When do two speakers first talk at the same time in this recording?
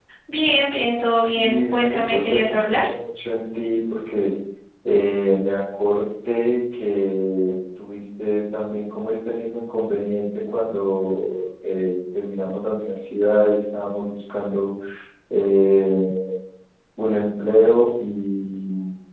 1.4 s

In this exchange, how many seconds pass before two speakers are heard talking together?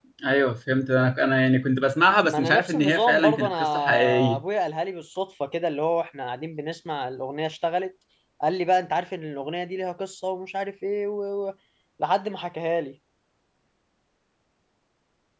2.2 s

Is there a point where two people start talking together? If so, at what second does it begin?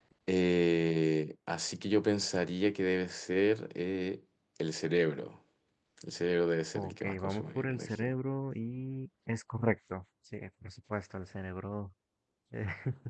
6.7 s

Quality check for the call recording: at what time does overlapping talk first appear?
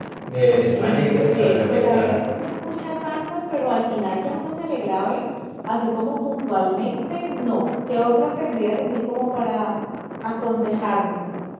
0.7 s

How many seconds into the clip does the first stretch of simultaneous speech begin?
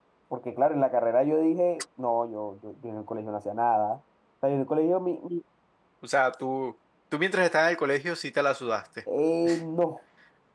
none

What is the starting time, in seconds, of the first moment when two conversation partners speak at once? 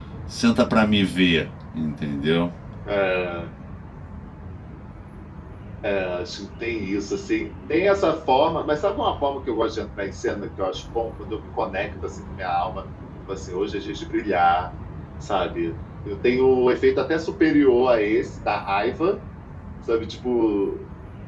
none

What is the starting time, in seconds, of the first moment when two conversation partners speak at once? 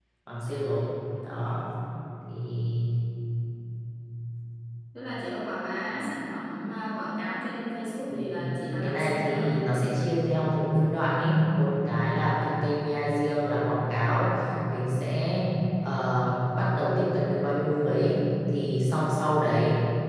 8.1 s

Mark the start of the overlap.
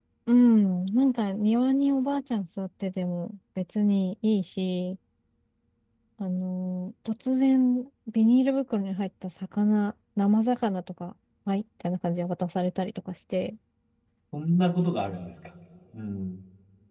none

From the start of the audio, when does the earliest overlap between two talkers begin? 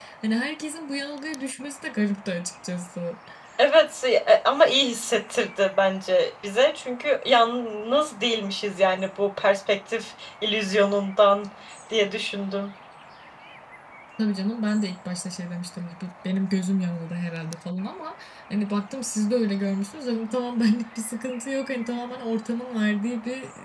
none

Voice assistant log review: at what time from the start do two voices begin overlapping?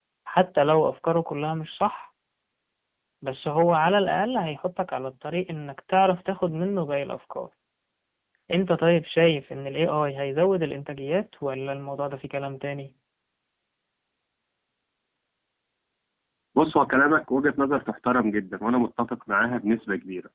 none

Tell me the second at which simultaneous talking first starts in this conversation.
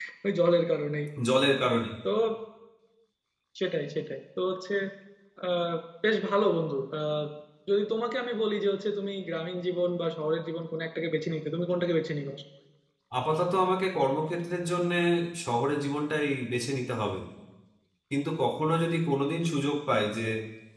none

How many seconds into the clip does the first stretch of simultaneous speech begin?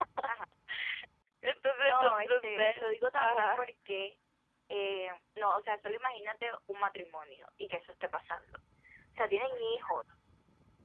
1.8 s

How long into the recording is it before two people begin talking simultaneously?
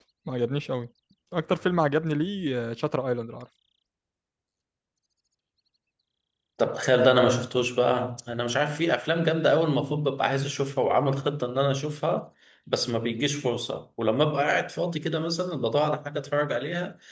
none

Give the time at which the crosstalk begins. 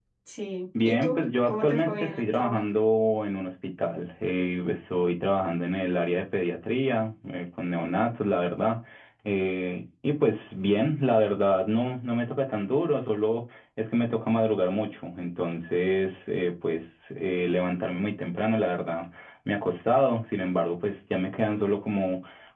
0.8 s

